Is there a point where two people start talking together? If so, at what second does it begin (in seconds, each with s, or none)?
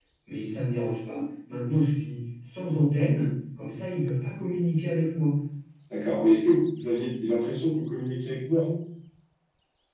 none